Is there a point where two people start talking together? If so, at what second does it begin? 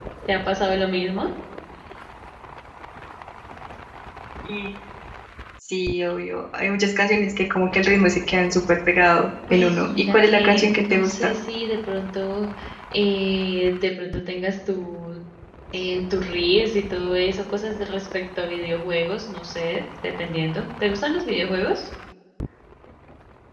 9.5 s

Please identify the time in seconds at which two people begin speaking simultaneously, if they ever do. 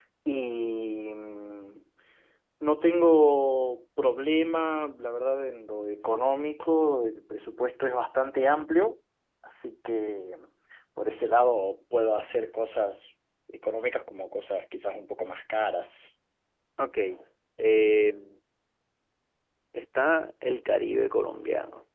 none

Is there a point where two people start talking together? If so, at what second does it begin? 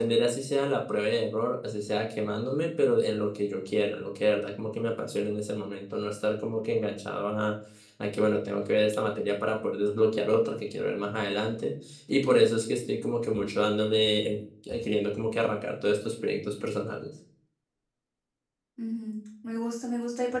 none

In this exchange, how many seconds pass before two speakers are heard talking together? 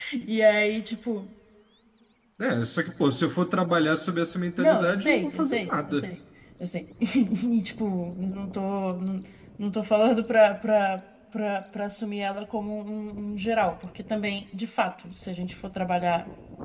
4.6 s

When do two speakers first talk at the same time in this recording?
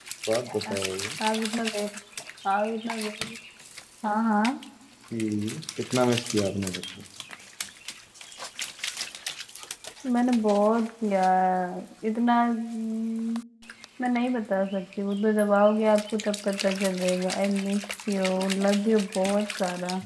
none

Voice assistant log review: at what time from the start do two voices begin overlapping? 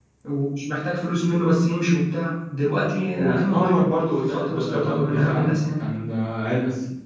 3.1 s

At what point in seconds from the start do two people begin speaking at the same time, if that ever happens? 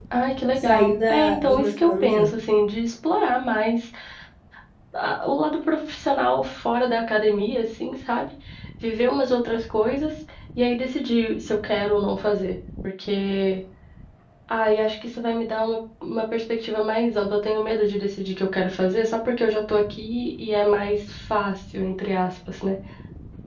0.6 s

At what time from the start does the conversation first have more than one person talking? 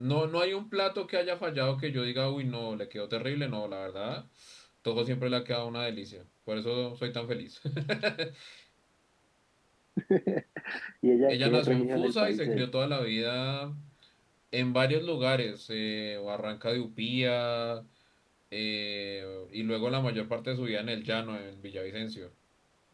11.3 s

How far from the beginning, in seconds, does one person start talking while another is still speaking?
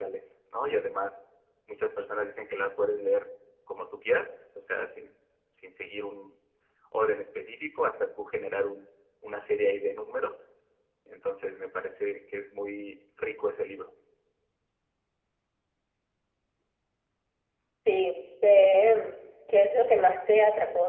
none

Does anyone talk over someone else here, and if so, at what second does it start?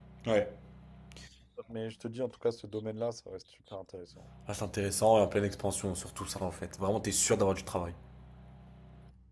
none

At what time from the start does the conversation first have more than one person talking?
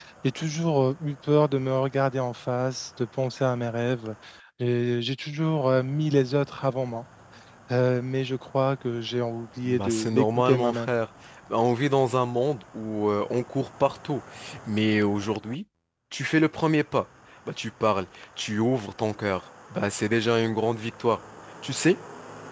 9.6 s

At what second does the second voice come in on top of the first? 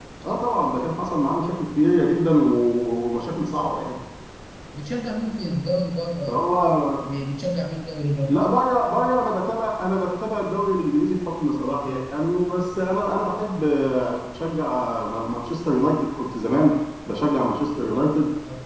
none

